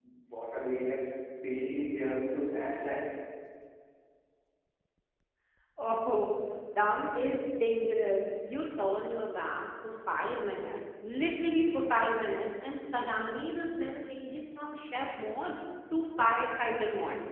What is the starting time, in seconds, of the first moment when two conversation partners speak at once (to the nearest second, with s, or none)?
none